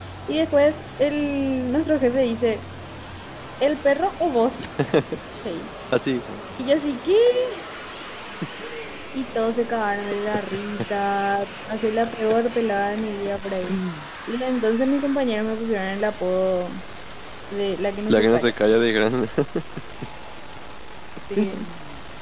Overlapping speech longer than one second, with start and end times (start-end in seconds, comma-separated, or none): none